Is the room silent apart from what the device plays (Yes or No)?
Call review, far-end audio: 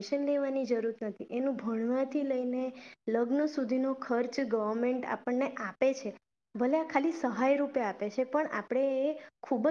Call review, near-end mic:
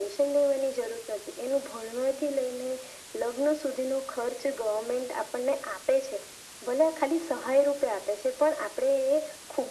Yes